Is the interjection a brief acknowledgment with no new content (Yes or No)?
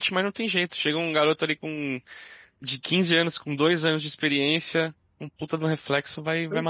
No